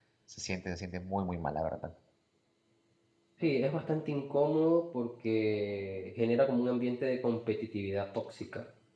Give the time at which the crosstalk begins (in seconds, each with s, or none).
none